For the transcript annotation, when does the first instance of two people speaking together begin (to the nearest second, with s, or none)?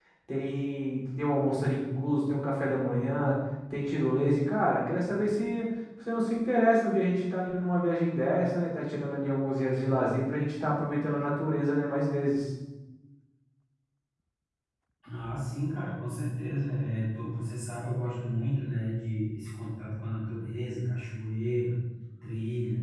none